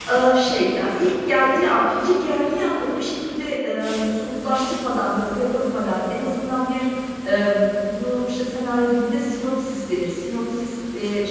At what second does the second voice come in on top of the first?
none

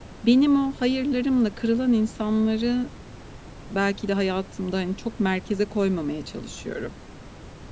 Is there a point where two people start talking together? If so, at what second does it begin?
none

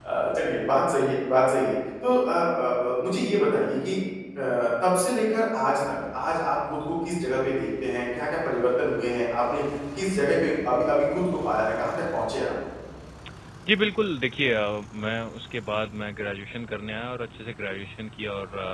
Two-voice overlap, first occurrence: none

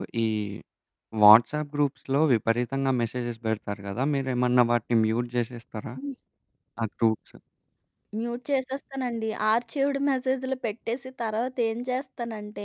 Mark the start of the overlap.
none

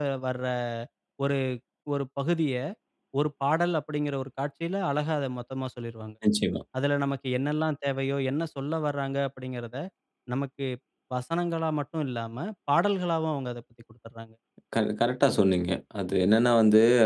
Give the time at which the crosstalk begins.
none

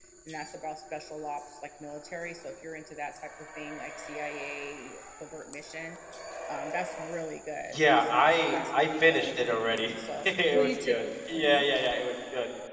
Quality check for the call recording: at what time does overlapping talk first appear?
7.6 s

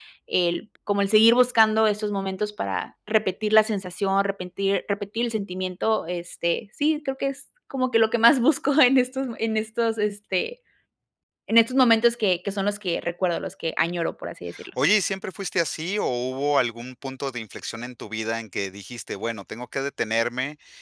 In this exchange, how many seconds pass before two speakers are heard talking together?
none

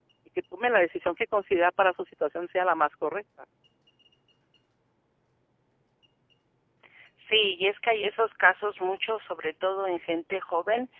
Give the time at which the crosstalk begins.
none

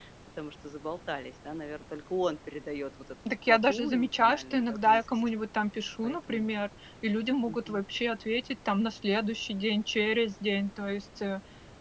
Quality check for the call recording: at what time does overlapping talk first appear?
3.5 s

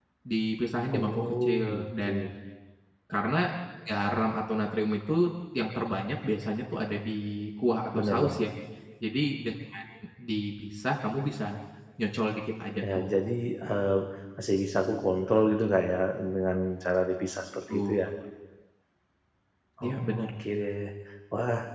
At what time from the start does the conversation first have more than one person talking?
0.9 s

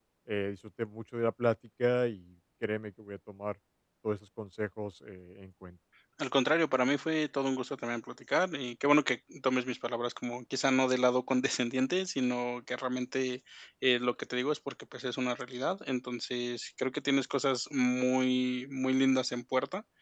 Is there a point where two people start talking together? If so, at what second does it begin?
none

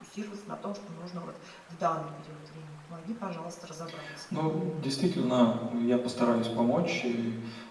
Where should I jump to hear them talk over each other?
none

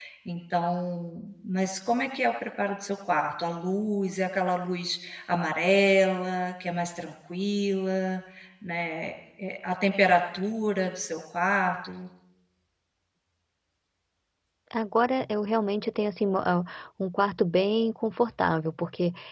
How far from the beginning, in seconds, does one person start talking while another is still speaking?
none

